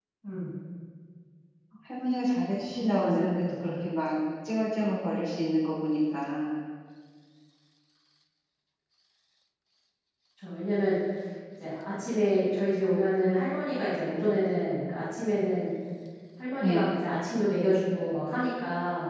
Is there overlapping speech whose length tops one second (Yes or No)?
Yes